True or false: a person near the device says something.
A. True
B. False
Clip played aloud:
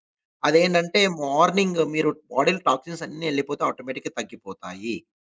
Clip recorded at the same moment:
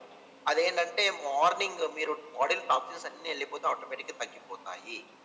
B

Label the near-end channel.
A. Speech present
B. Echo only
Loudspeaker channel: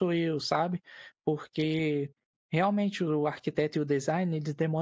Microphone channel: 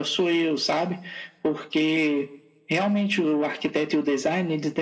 B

